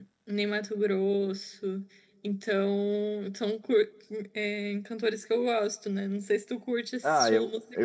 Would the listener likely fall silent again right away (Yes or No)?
No